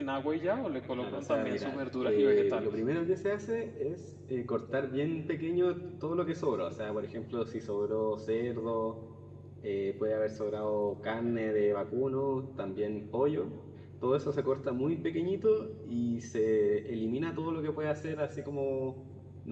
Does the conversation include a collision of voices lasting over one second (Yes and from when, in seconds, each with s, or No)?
Yes, from 1.0 s